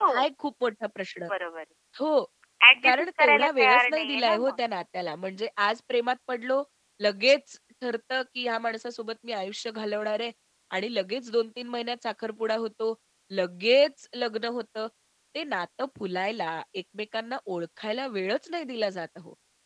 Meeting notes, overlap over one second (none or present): present